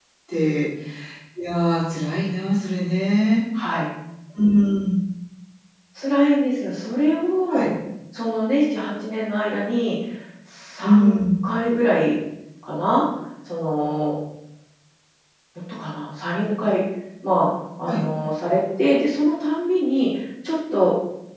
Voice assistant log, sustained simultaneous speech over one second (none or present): none